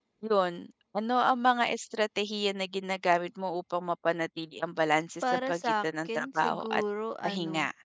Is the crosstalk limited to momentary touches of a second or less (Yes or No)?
No